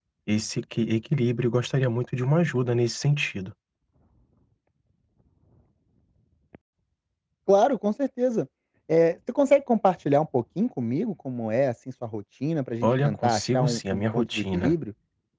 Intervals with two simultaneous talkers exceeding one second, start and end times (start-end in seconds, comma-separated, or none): 12.8-14.7